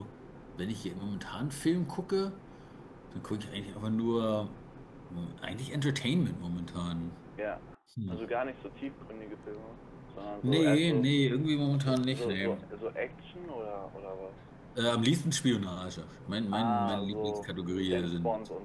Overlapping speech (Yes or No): Yes